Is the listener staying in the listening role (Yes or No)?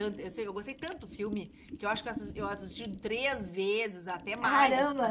Yes